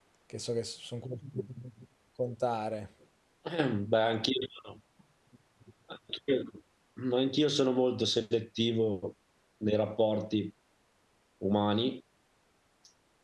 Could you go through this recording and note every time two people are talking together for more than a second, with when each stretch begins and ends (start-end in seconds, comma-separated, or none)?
none